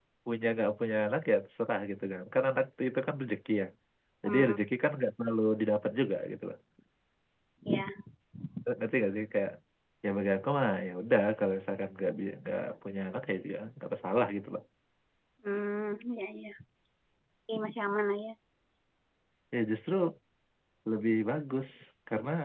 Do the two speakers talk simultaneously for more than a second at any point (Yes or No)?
No